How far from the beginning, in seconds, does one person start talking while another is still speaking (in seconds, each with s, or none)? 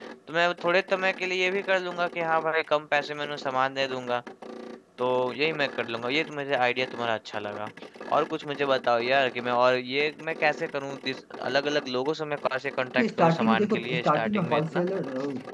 13.0 s